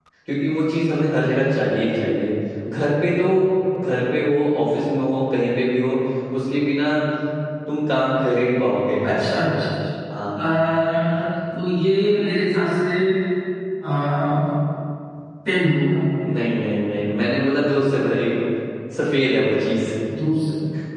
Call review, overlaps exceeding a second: none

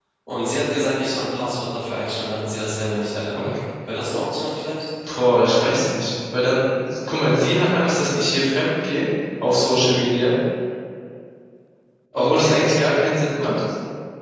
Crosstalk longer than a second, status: none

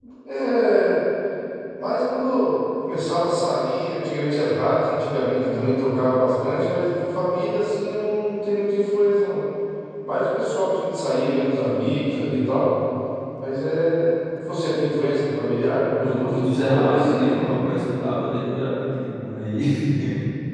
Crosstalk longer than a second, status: present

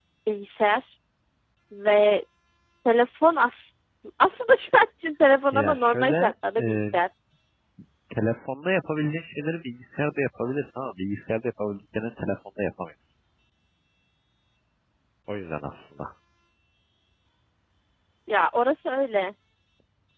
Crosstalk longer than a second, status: present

